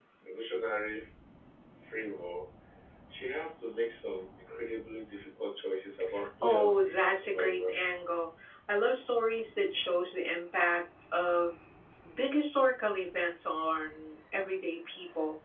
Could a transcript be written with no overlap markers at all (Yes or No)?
No